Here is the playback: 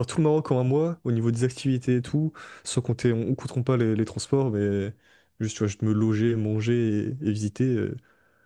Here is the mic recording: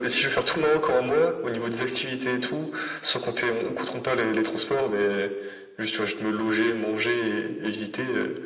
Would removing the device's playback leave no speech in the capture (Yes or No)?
Yes